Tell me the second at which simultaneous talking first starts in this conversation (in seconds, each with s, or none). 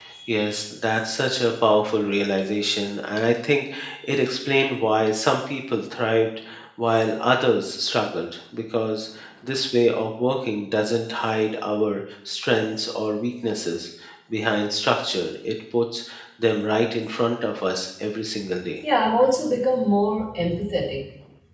none